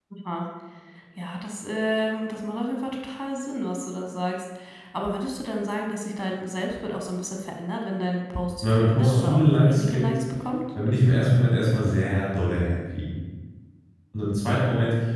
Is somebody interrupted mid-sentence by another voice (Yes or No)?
Yes